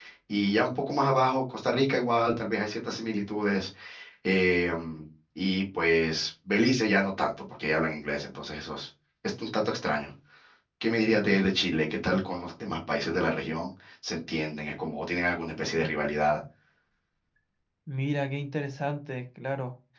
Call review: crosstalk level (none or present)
none